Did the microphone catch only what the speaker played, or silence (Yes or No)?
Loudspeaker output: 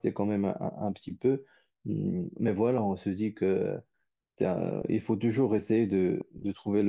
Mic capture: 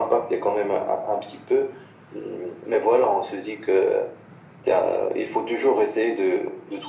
Yes